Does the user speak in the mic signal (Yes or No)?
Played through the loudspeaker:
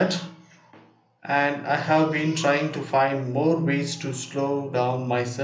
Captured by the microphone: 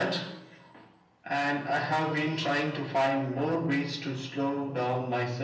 No